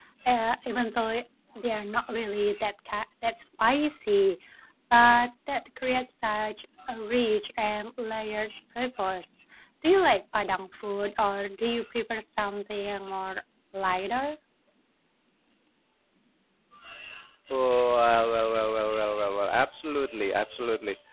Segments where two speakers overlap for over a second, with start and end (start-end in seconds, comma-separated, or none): none